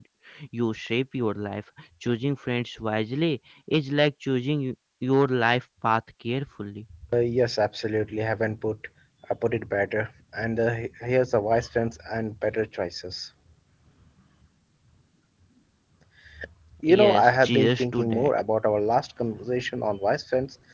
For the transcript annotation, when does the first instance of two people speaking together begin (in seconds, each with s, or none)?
16.9 s